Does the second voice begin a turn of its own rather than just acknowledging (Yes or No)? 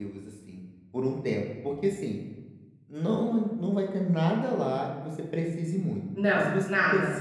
No